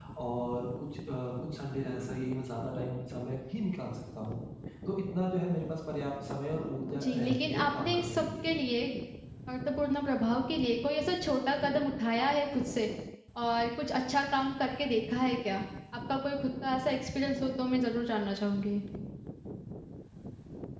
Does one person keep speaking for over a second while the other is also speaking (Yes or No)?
Yes